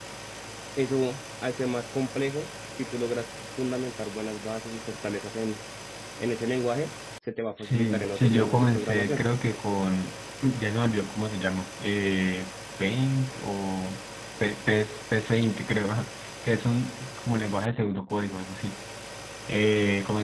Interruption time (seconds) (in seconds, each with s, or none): 7.6 s